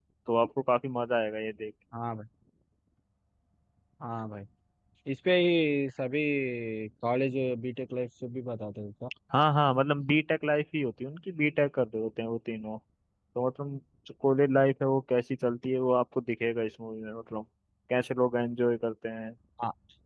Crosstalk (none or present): none